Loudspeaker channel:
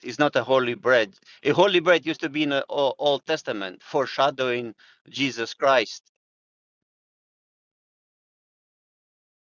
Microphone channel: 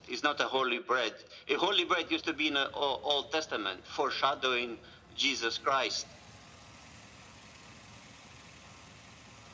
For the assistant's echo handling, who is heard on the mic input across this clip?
echo only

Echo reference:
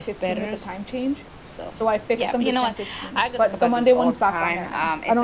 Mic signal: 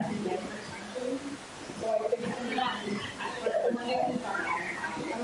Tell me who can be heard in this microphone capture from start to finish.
echo only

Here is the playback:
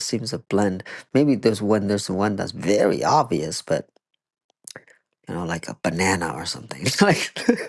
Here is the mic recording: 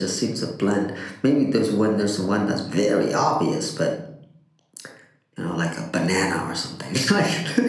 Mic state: echo only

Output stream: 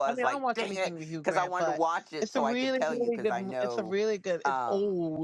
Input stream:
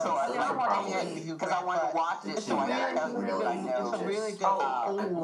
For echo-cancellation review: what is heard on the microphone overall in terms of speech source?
both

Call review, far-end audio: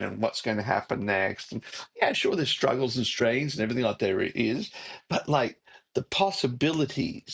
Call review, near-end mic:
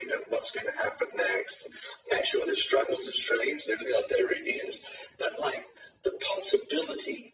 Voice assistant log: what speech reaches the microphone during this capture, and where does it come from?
echo only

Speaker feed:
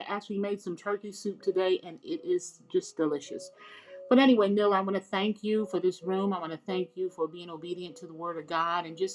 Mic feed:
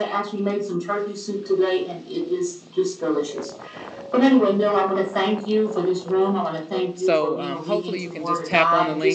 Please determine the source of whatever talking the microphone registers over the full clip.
both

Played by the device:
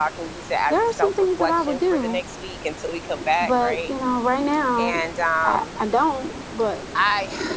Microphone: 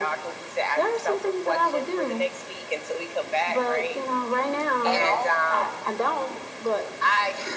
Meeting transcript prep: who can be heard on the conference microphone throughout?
both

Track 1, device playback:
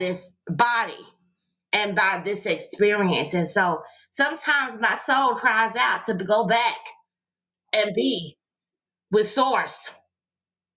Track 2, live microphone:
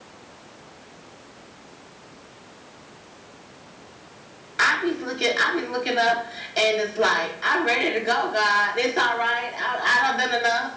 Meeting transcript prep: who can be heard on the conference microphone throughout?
user only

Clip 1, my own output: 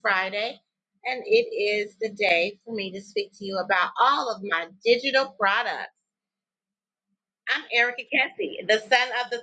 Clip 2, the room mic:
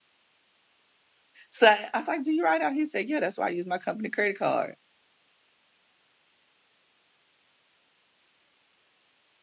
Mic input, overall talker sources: user only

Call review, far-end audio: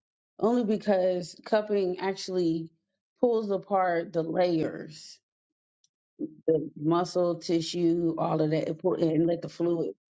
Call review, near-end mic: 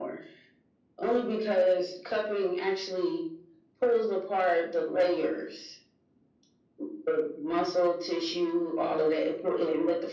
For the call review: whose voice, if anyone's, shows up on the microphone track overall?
echo only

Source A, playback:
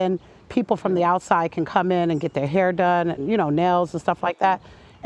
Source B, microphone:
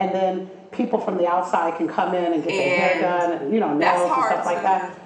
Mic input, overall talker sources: both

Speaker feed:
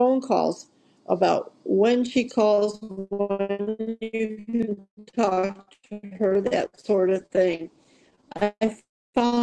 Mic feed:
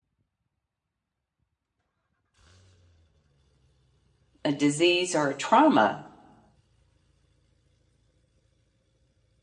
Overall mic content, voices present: user only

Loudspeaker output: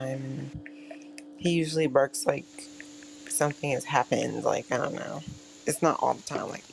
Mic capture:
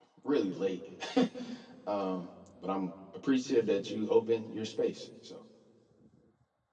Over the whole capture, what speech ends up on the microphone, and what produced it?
user only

